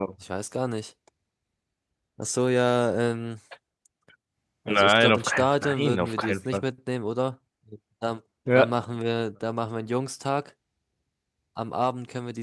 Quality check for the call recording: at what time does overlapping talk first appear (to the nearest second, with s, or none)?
5 s